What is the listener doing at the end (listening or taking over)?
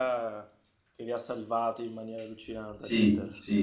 taking over